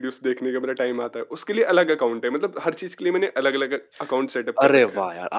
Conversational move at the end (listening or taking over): taking over